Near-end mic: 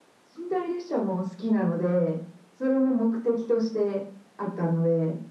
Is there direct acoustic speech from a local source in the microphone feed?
No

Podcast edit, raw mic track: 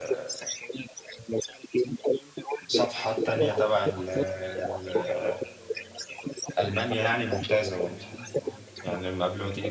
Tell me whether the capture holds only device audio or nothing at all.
No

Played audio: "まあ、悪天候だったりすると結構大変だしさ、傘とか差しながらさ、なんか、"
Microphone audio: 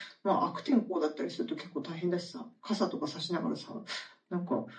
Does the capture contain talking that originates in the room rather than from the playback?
No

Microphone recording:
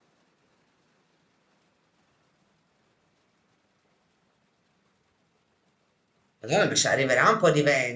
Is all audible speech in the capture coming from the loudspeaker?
No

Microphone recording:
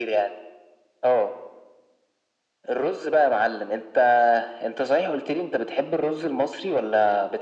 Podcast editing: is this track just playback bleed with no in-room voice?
Yes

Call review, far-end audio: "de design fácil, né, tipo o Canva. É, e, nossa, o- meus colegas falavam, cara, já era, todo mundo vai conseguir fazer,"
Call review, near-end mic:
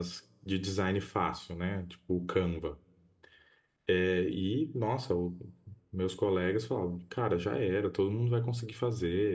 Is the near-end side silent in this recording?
Yes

